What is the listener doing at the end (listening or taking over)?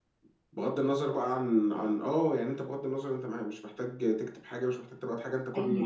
taking over